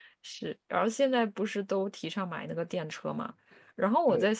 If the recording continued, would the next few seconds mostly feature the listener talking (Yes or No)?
No